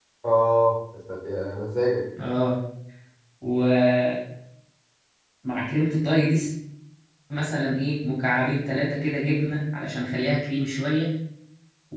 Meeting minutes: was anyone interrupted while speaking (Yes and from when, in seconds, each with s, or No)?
No